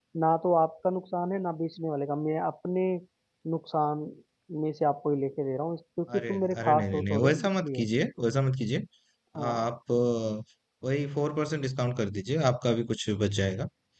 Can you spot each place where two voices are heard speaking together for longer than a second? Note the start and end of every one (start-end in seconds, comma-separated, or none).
6.2-7.9